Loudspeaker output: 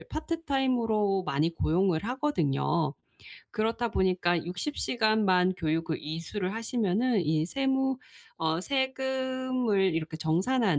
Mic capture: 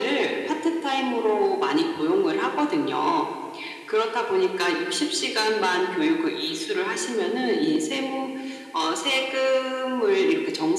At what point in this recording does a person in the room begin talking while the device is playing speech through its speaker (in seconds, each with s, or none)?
none